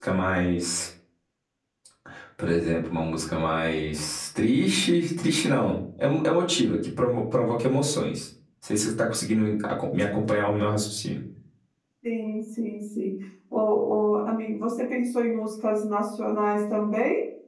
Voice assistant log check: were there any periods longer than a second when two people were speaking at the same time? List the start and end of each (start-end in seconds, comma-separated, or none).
none